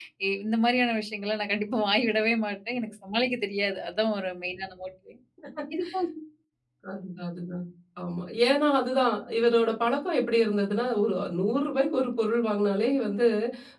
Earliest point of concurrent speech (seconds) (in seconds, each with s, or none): none